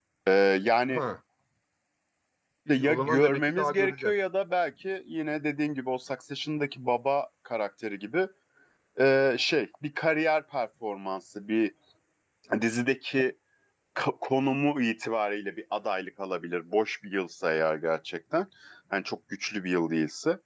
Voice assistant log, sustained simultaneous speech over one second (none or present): present